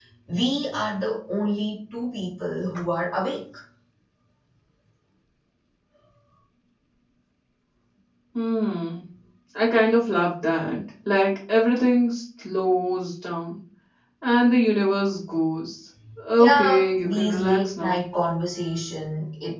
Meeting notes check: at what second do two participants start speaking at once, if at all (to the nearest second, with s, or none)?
16 s